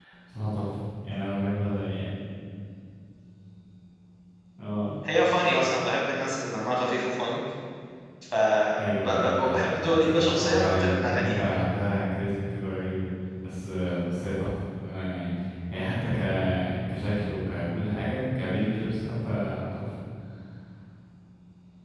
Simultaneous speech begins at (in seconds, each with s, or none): 8.8 s